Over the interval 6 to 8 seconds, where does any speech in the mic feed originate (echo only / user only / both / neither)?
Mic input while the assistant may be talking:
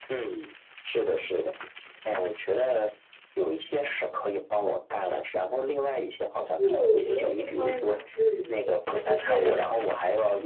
both